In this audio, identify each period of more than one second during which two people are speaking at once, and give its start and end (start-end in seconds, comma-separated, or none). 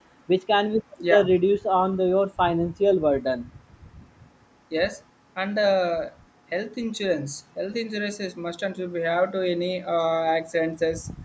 none